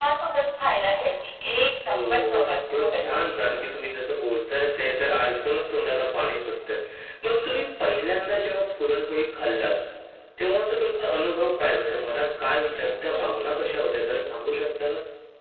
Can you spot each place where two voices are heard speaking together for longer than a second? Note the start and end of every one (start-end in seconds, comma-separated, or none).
1.9-3.4